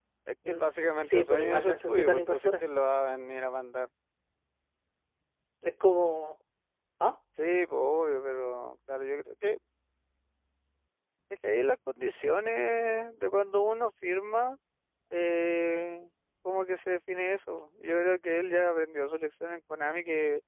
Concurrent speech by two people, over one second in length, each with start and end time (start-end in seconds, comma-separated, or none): 1.0-2.5